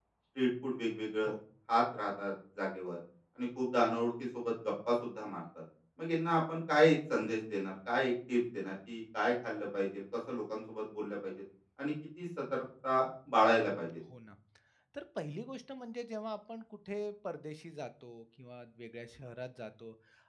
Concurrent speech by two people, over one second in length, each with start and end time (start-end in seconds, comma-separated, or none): none